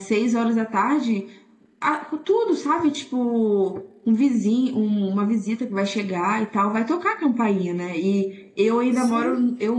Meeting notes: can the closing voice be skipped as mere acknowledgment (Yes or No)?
Yes